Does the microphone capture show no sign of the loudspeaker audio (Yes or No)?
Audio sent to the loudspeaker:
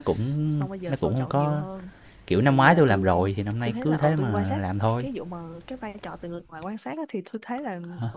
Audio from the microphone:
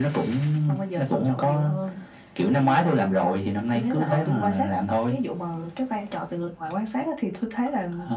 No